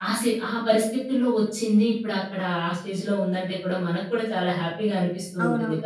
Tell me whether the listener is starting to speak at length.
Yes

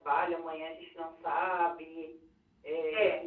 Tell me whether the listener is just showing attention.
Yes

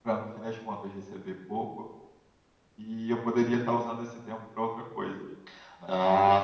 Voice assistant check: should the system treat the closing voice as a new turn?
Yes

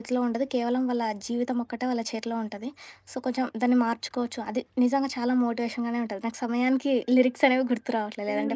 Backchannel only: No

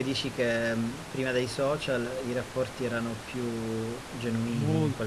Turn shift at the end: Yes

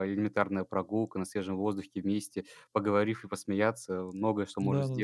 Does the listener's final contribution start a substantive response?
Yes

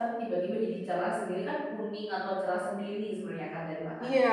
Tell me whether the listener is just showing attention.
No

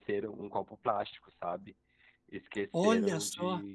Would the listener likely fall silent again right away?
Yes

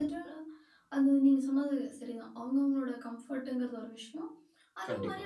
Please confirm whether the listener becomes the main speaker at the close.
No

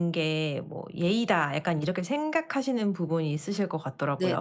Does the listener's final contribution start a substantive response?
Yes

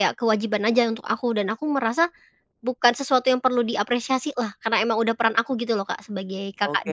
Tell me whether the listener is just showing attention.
No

